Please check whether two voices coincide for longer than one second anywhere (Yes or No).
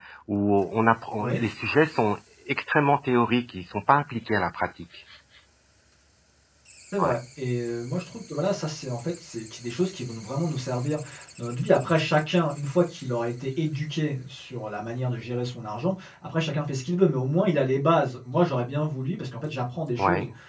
No